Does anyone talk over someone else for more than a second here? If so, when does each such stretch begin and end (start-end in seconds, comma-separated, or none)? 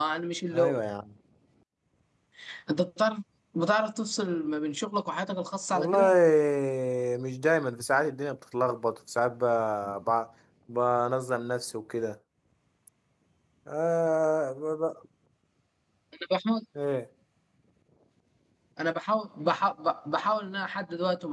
none